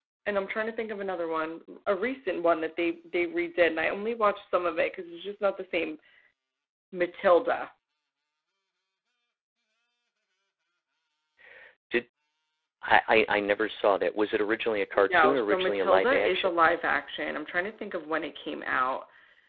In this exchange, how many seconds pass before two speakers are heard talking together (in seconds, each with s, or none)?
14.9 s